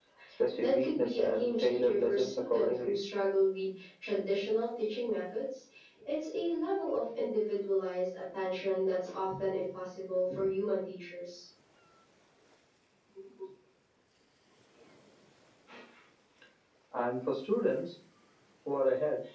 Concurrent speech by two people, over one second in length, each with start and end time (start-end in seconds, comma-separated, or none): 0.6-3.0